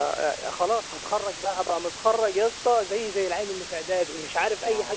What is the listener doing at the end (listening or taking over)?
taking over